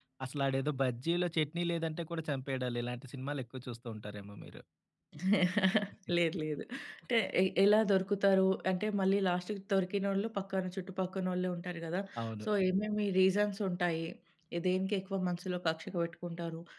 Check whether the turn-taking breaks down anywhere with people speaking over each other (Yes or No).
No